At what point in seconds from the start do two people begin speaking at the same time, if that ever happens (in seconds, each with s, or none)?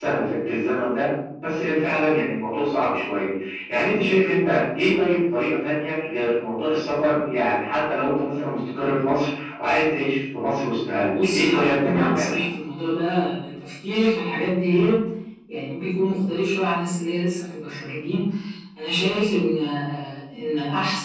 11.1 s